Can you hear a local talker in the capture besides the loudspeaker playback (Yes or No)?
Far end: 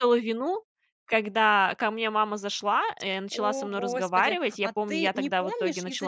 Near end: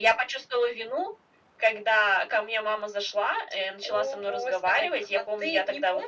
No